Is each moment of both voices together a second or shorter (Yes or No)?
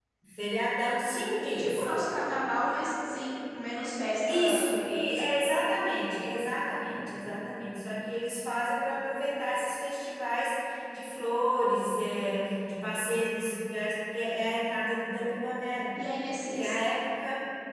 Yes